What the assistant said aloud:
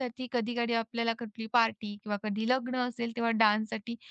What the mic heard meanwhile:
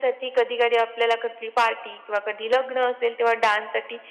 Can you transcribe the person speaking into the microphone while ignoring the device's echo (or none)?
none